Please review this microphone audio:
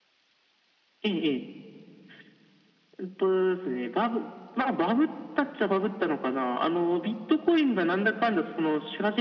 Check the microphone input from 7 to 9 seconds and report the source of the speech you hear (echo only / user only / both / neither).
echo only